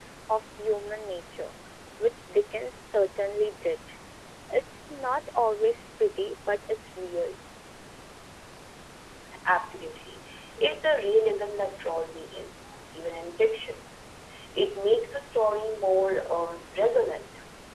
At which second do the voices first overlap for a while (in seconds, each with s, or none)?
none